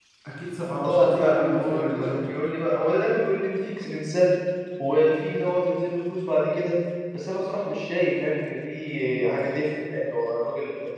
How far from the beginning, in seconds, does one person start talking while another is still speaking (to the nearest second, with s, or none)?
1 s